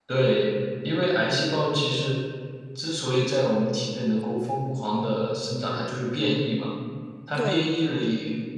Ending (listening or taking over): listening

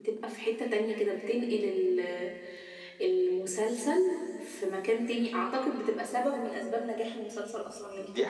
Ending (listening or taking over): taking over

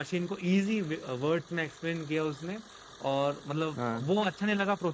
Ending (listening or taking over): listening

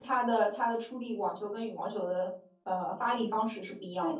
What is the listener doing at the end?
taking over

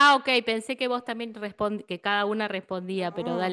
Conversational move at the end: taking over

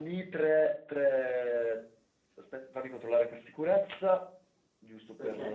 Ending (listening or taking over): taking over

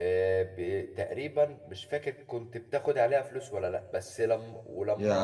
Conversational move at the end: listening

